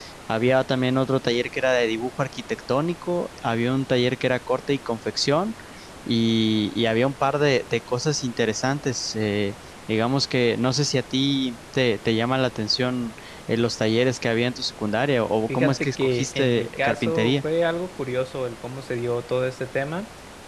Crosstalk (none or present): present